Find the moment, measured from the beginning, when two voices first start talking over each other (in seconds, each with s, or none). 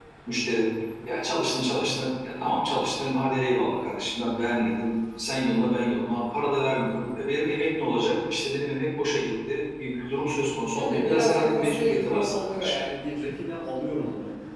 10.7 s